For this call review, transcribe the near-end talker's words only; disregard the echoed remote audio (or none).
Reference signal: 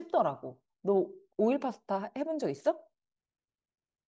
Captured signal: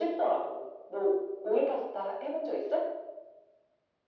none